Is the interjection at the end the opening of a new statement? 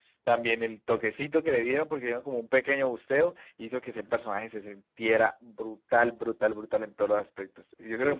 Yes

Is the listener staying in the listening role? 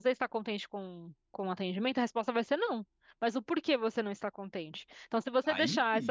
Yes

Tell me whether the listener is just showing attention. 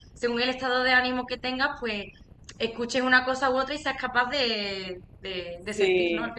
No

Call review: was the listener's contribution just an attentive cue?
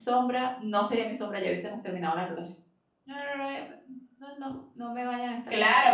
No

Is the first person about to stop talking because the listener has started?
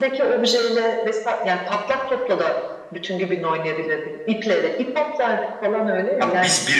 Yes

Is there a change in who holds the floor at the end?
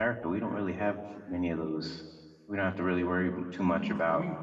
Yes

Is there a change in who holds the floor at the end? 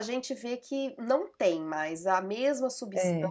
No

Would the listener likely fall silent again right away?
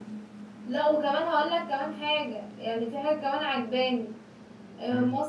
Yes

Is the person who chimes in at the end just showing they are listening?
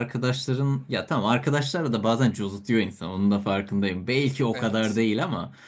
Yes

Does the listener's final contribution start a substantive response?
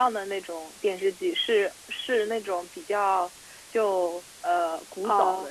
No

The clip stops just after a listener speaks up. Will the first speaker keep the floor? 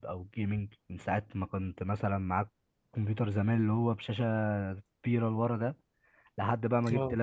Yes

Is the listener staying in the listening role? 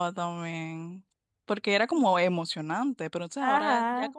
Yes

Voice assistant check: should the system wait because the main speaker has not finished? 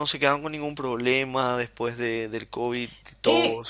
No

